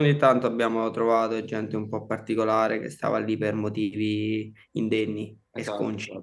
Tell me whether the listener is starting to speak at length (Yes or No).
Yes